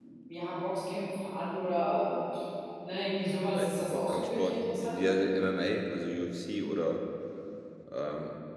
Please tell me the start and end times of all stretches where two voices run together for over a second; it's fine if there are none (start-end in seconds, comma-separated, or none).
3.5-5.1